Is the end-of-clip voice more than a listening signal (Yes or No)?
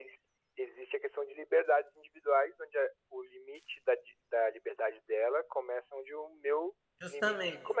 Yes